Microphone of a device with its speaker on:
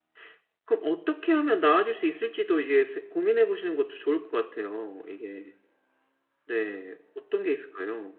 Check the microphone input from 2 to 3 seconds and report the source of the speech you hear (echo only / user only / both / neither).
user only